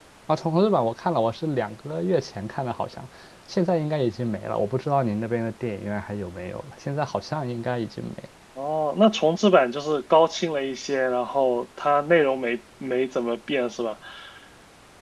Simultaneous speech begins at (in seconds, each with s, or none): none